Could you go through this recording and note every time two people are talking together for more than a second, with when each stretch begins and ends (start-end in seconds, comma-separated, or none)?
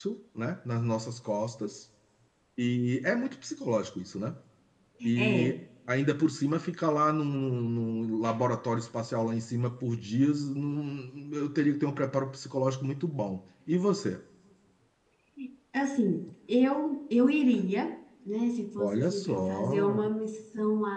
18.8-20.0